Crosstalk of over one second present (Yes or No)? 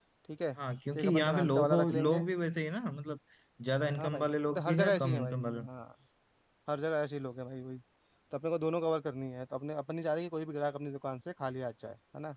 Yes